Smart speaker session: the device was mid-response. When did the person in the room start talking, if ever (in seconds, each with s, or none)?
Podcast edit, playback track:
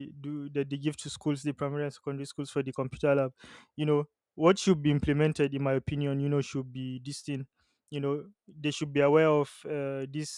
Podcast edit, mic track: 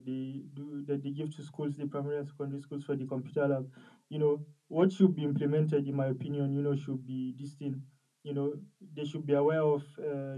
none